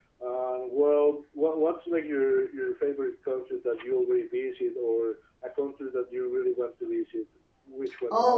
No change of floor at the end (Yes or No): No